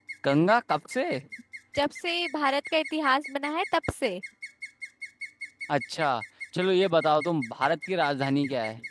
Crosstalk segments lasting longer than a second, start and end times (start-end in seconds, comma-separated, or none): none